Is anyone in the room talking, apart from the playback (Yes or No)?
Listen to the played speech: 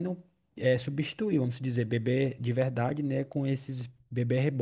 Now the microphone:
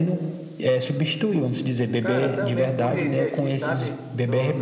Yes